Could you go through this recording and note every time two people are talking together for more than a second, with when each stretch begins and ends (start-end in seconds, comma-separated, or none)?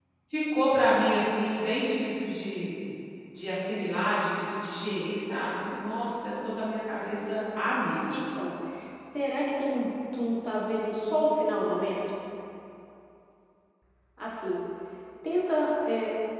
none